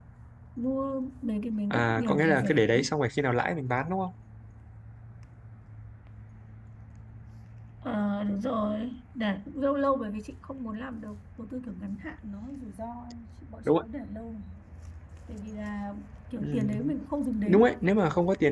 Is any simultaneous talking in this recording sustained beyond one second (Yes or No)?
Yes